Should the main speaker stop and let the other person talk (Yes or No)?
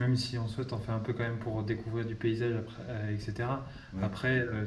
No